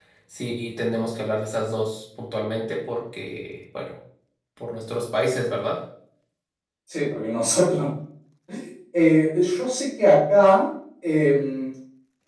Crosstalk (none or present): none